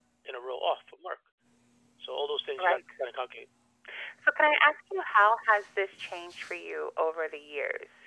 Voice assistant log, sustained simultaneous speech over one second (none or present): none